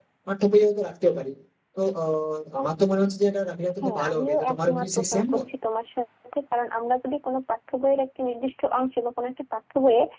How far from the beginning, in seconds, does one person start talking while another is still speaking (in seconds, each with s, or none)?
3.8 s